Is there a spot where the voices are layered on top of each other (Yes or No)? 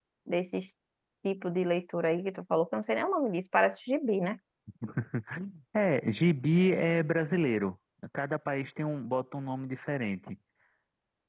No